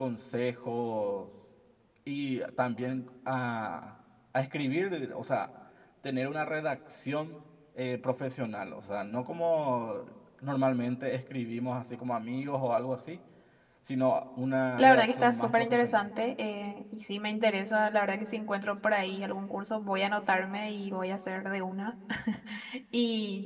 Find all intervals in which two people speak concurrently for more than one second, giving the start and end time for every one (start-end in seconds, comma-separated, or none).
14.8-16.1